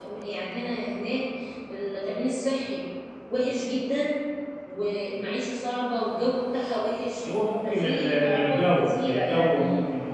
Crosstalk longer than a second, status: present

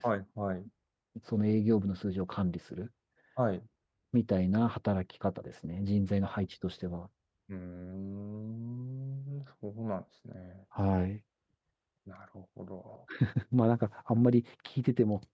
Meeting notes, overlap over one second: none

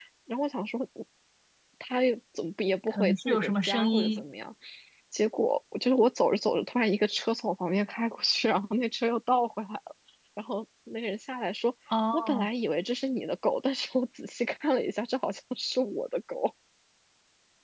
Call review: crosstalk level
present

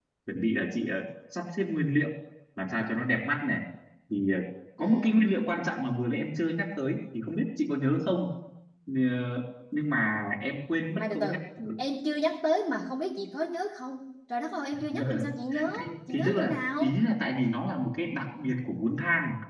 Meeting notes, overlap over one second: present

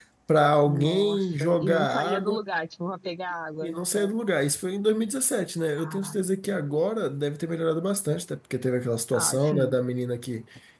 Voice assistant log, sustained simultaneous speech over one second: present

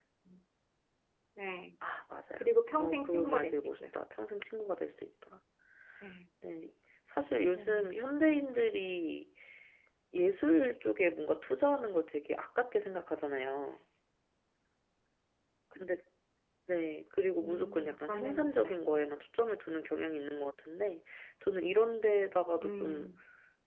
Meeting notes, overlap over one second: present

